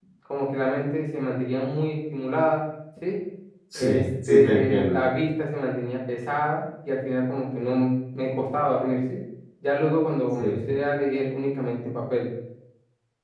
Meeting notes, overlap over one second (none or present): present